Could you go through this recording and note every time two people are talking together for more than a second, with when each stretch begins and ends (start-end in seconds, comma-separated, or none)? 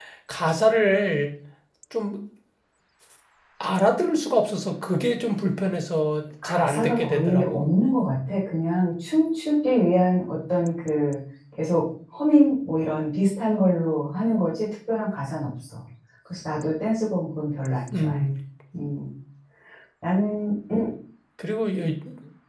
6.4-7.7